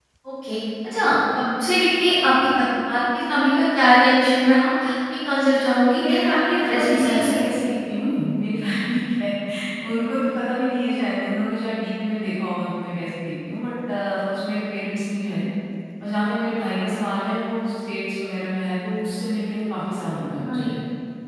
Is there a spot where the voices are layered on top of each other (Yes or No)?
Yes